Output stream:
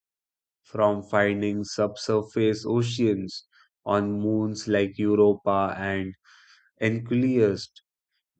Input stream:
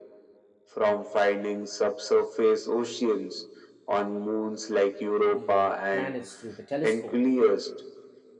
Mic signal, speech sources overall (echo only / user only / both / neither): both